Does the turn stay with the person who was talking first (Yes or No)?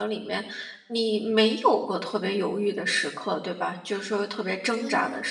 No